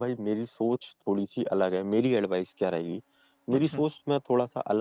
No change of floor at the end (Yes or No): Yes